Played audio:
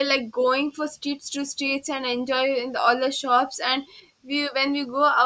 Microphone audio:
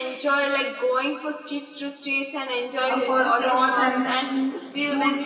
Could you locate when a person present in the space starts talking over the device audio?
2.9 s

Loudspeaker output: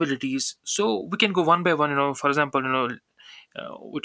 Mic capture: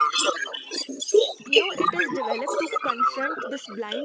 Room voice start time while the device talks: 1.5 s

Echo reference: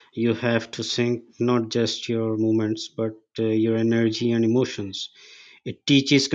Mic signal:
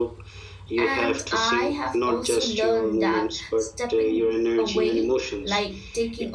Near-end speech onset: 0.8 s

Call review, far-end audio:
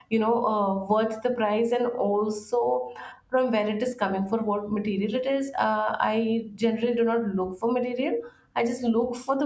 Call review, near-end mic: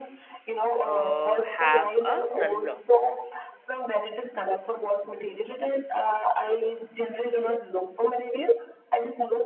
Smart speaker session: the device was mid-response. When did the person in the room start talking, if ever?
0.8 s

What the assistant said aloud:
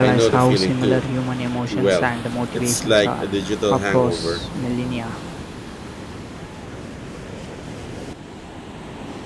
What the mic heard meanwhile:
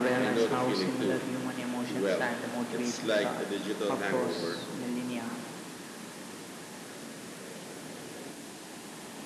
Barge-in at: none

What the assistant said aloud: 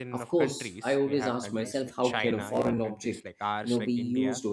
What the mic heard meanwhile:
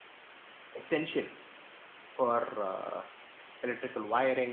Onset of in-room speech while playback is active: 0.7 s

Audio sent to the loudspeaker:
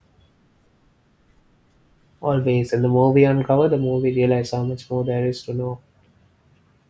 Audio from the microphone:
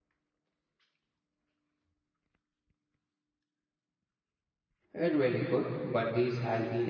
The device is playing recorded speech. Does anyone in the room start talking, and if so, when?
4.9 s

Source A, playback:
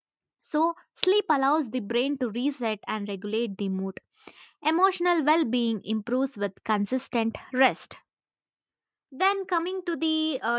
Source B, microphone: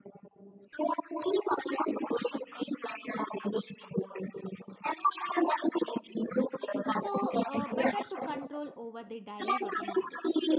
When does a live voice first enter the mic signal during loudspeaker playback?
6.9 s

